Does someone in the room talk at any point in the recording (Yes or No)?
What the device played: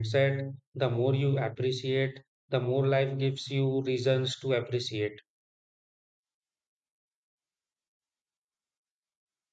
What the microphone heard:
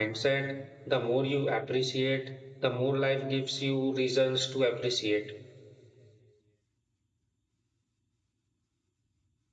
No